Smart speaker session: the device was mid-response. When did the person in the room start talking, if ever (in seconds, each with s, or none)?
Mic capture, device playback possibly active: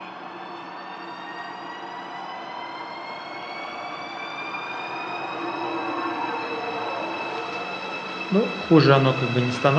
8.3 s